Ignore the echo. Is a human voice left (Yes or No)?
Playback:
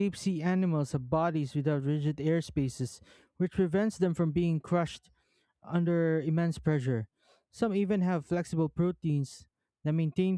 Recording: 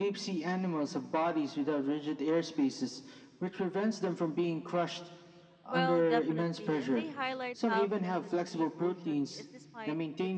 Yes